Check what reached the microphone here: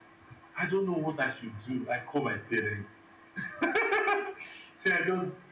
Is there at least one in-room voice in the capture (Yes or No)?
No